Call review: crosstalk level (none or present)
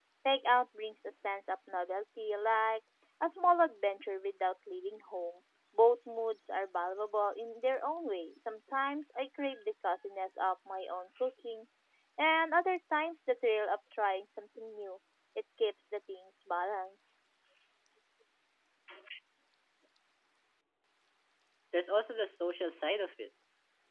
none